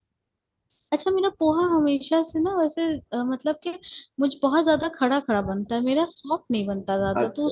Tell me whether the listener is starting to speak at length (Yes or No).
Yes